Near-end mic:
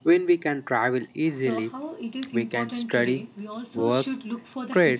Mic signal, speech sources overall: both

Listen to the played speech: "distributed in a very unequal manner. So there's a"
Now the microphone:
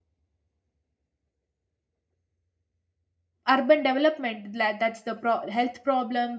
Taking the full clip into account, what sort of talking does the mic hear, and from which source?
user only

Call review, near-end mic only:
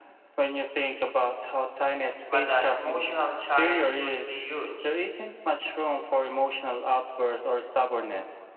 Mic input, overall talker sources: both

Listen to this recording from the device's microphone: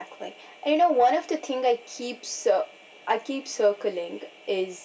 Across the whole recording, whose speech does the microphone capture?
echo only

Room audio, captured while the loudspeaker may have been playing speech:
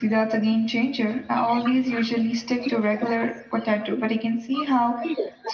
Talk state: both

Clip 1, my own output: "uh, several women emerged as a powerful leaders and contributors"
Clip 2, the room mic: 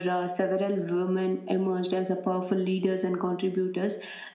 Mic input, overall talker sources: echo only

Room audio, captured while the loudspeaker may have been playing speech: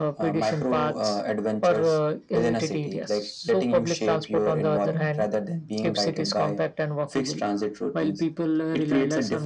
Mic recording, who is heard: echo only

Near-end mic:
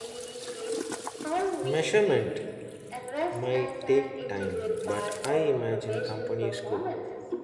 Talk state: both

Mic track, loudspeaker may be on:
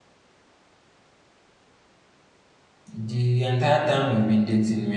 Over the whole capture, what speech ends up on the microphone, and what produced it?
user only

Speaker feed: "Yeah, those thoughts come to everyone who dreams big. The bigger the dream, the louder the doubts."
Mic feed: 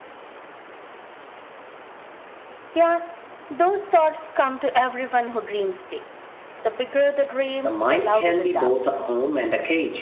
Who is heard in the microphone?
both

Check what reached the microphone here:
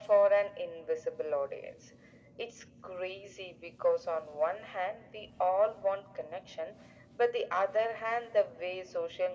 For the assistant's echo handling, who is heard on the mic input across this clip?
echo only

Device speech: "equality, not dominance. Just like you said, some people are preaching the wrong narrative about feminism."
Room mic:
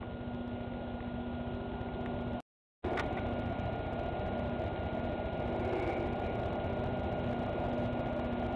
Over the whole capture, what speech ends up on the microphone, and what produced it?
neither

